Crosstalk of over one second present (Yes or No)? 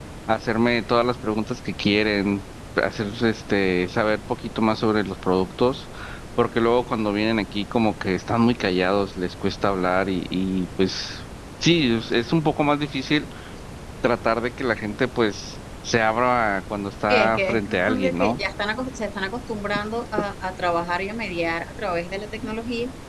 Yes